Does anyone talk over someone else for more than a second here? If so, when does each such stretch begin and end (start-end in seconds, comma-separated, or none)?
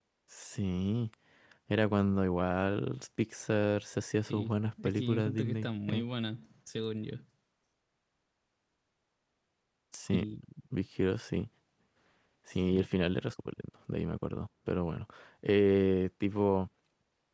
4.3-6.0